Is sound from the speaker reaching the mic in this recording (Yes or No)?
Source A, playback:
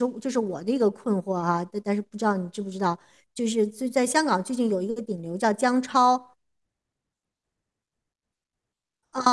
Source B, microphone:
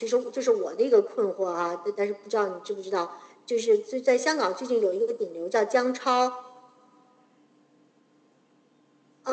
Yes